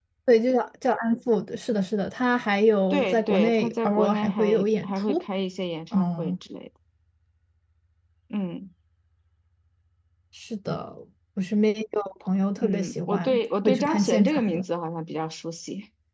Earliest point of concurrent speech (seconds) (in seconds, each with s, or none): 2.9 s